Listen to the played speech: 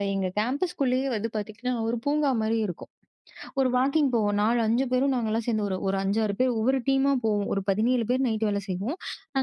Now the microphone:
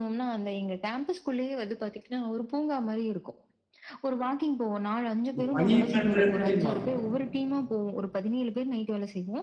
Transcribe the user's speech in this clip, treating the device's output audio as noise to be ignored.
இது பணி பண்ற இடத்திலயுமா?

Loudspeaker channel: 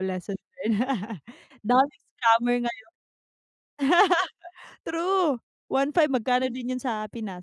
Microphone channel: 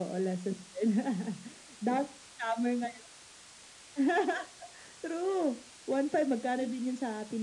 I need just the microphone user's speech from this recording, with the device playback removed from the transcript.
none

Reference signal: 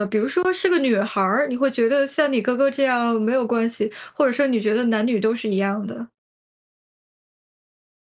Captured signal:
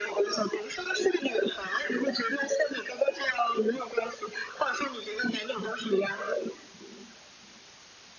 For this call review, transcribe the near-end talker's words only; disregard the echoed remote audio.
none

